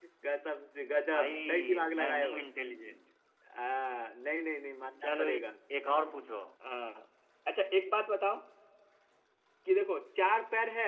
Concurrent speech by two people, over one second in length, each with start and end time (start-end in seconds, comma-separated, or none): 1.1-2.4